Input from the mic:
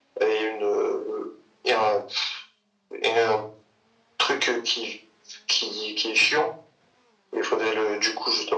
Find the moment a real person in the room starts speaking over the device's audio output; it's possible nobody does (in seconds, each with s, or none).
none